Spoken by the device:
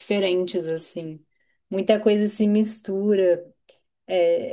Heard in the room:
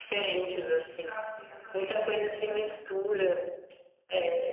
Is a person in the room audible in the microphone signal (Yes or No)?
Yes